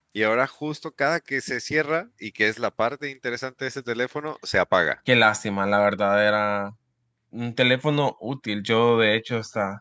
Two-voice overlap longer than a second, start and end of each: none

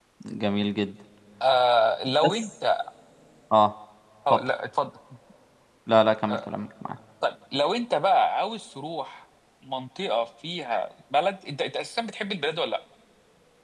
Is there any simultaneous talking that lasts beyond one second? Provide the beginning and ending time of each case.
none

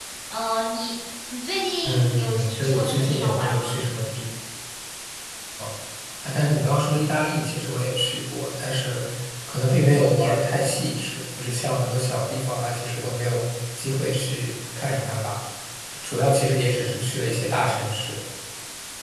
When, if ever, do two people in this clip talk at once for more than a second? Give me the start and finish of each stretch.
1.8-3.7

